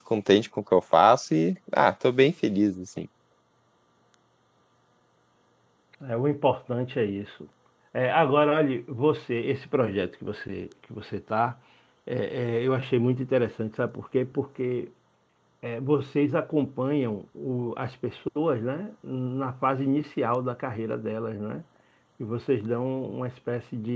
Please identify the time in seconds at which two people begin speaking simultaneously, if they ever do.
none

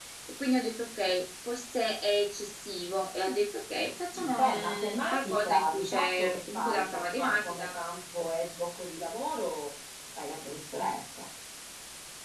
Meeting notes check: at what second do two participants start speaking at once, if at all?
4.1 s

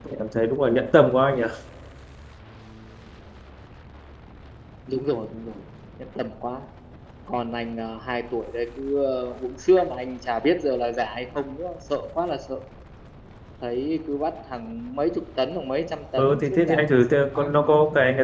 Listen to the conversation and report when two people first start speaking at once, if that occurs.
16.2 s

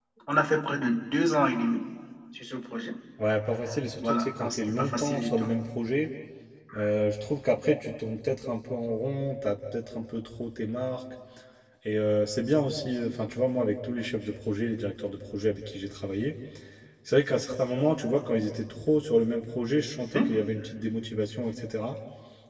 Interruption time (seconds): 4.0 s

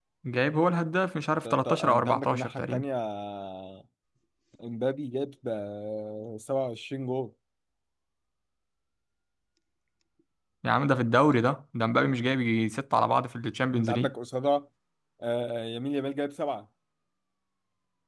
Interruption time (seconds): 1.4 s

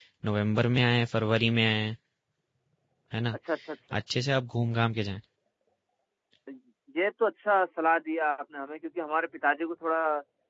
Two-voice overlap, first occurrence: none

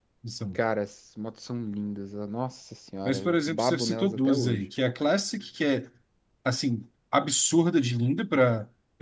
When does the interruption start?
3.0 s

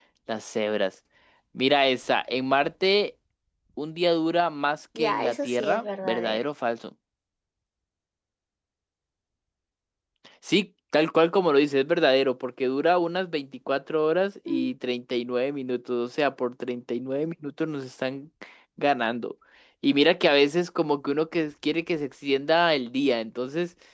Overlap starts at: 5.0 s

